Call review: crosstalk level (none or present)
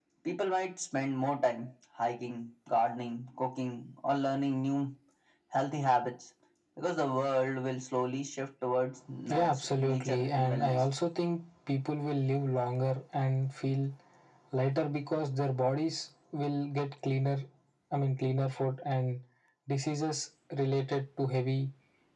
present